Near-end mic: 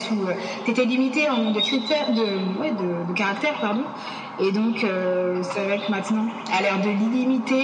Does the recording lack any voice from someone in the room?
Yes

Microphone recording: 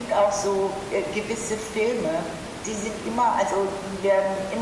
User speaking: No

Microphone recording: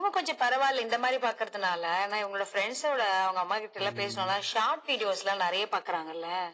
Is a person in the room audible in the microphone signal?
Yes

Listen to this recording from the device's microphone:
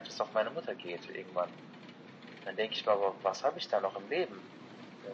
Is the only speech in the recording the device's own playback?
Yes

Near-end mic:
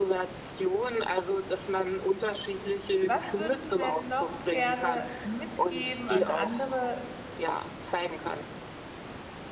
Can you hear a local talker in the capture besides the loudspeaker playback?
Yes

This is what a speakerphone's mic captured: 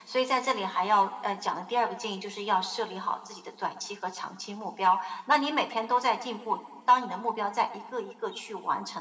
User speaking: No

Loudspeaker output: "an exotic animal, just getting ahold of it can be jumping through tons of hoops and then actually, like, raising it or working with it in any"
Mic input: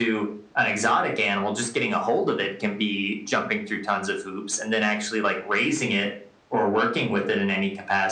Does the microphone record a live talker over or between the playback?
No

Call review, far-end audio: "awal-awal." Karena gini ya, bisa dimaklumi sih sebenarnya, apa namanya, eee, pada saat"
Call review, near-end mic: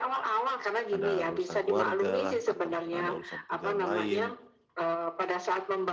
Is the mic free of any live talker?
No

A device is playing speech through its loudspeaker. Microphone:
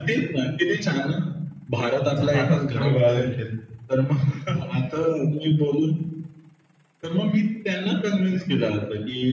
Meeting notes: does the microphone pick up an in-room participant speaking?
Yes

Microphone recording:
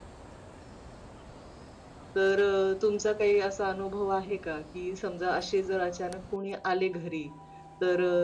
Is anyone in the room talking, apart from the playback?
Yes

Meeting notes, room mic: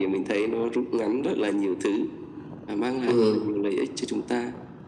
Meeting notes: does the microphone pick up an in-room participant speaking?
Yes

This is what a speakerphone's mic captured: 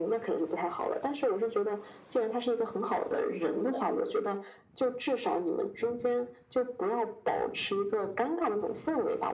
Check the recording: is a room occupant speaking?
No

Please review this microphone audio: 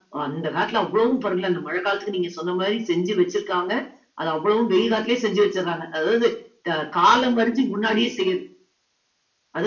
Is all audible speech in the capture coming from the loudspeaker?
Yes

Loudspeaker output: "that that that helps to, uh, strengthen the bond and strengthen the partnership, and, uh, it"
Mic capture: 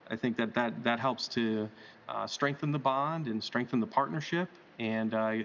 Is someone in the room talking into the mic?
No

